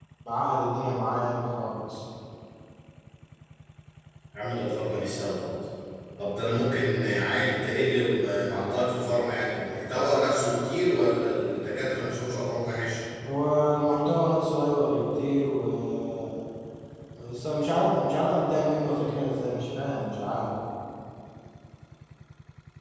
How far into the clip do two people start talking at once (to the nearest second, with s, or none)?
none